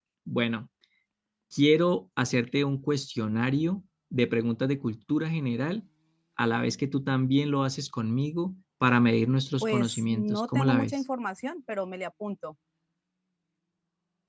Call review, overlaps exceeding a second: present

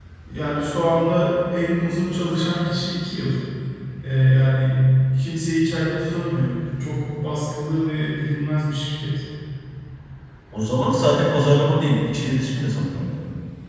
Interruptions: none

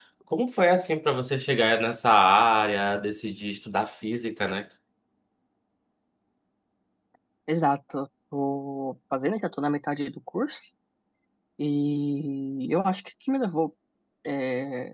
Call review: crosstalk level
none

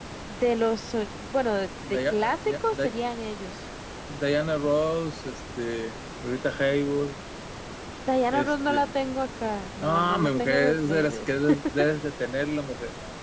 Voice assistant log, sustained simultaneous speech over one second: present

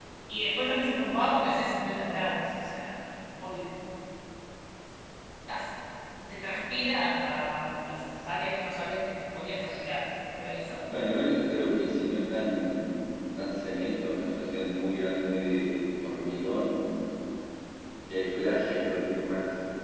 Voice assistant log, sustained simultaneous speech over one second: none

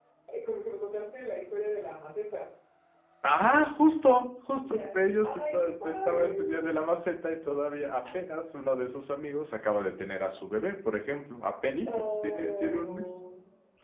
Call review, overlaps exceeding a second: present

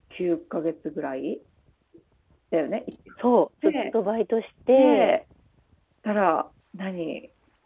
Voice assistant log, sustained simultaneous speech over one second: none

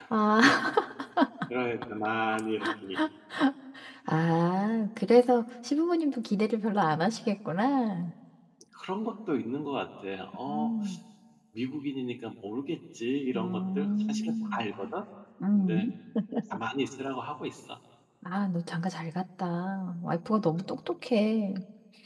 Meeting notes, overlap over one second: present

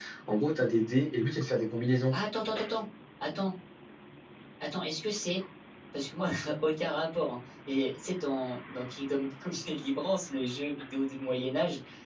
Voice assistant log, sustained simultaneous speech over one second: none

